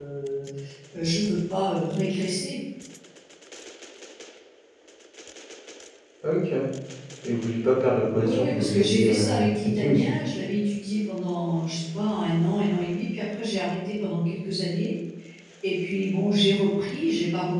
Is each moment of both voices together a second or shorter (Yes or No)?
No